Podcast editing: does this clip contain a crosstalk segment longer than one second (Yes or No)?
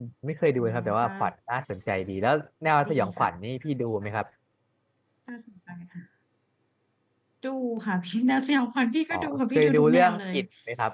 Yes